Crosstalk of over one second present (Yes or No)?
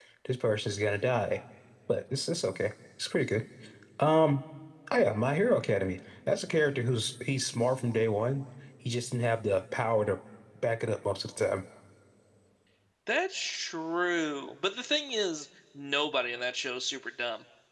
No